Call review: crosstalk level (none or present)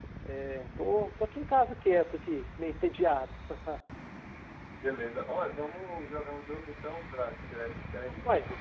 none